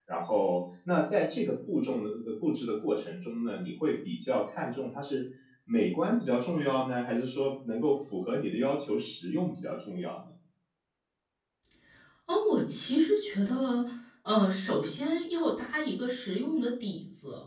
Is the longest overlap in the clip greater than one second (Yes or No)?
No